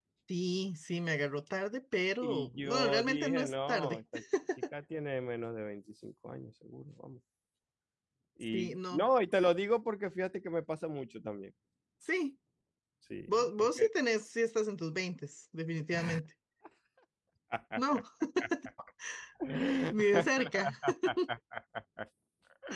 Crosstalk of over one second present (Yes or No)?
Yes